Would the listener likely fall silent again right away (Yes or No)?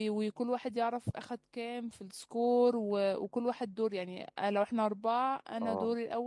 Yes